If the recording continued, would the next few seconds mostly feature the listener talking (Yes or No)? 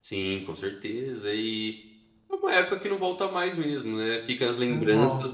No